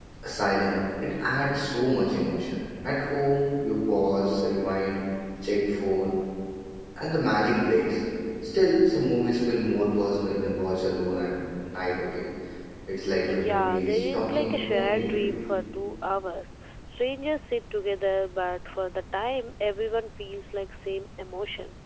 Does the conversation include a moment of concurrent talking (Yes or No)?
Yes